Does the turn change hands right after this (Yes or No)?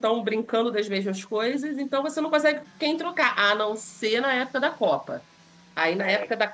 No